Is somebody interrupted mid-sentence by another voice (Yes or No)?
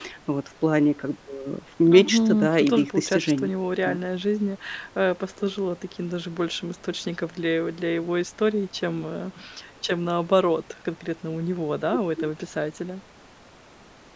Yes